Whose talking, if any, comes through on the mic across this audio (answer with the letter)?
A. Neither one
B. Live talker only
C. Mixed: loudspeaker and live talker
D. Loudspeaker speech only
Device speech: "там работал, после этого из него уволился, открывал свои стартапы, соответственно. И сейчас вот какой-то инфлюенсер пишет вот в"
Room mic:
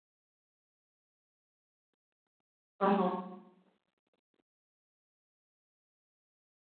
B